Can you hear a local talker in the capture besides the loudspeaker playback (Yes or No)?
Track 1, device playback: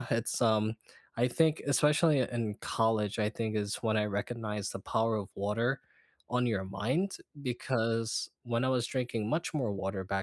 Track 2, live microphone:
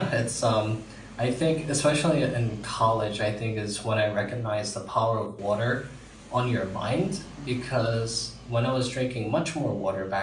No